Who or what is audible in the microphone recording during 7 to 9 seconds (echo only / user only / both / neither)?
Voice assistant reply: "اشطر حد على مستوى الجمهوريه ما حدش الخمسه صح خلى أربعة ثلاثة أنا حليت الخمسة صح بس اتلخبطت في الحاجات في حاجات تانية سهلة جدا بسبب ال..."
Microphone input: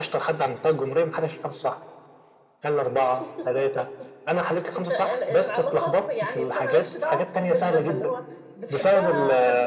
both